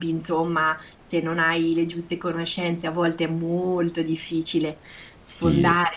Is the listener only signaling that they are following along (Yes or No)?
Yes